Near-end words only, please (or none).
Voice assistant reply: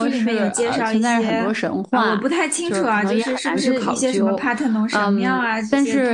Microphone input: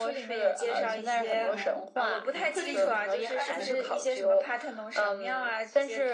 也没没有吗？嗯，或者以前，那以前，